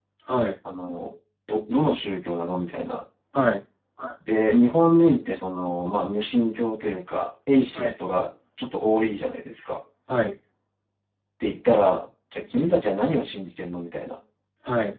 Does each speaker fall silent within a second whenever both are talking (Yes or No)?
Yes